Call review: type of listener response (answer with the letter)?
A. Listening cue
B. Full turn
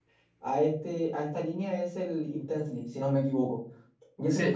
B